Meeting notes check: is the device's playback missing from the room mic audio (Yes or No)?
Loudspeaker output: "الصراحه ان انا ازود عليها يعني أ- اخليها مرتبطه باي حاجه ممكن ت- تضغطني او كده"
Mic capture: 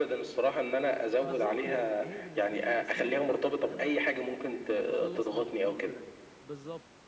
No